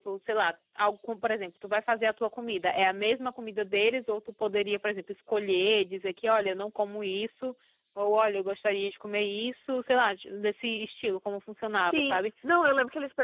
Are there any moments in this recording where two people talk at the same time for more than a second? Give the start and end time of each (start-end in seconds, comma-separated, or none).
none